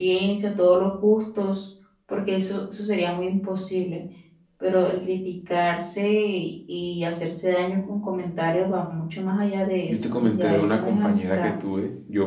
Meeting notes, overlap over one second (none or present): present